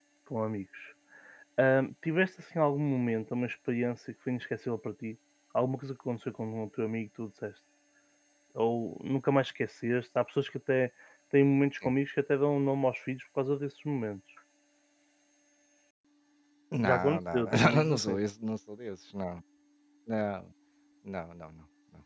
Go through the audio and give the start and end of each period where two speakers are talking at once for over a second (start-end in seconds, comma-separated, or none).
16.8-18.1